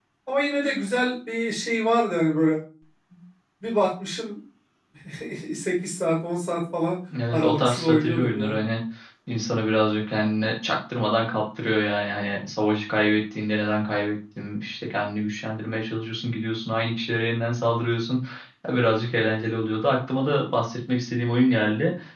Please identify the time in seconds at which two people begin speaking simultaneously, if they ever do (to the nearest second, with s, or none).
7 s